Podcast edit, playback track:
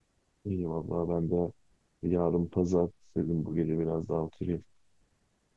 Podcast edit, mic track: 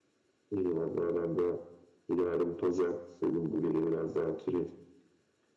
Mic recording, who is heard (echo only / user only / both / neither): echo only